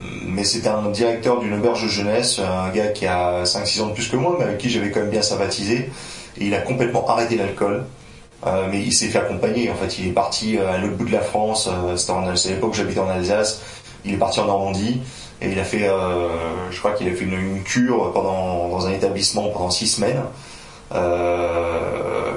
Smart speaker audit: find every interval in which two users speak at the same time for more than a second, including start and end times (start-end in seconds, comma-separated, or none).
none